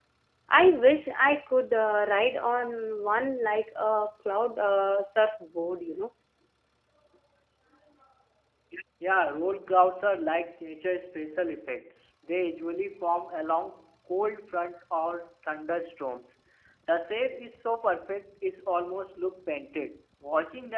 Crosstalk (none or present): none